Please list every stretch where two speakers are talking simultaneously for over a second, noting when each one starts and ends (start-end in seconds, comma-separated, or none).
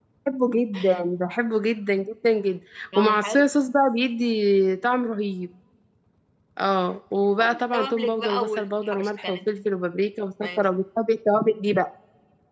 7.4-9.6